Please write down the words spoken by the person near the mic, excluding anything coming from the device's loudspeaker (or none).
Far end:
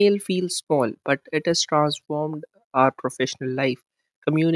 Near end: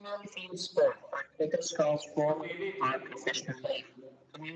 Could be anything.